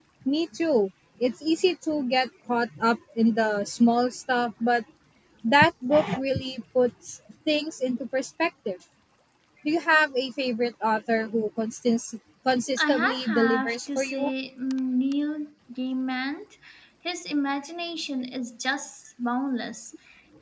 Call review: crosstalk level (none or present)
present